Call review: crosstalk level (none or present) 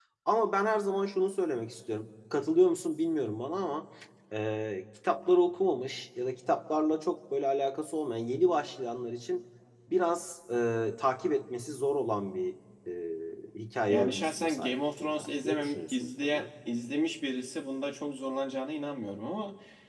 present